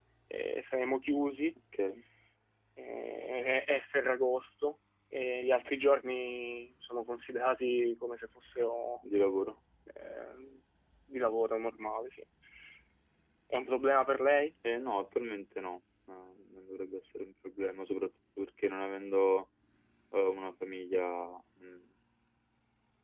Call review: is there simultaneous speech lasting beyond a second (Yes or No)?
No